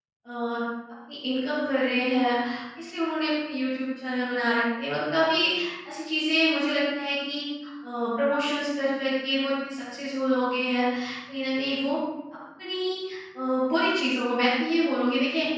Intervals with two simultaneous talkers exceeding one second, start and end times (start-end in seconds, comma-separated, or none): none